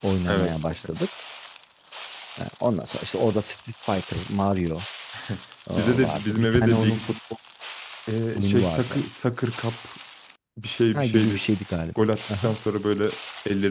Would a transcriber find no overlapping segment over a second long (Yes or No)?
No